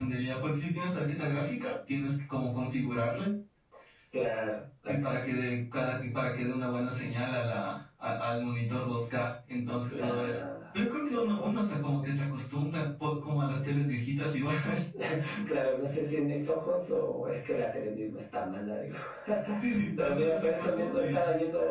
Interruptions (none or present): present